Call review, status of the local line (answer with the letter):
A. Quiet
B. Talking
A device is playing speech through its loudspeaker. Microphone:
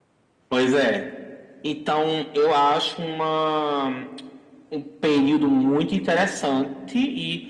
A